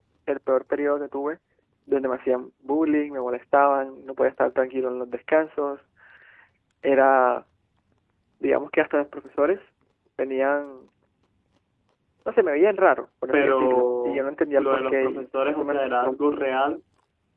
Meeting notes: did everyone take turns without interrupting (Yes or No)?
No